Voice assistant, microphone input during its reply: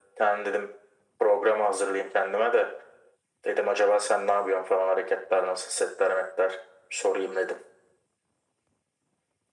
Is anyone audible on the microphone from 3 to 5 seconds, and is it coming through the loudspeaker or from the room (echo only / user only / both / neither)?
echo only